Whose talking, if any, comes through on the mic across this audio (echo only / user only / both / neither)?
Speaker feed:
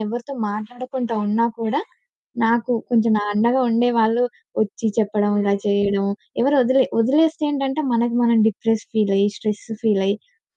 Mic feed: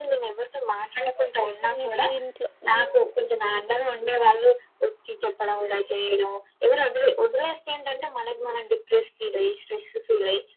both